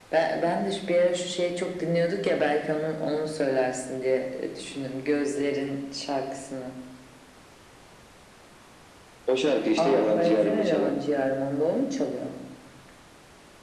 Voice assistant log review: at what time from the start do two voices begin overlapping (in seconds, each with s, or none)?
9.8 s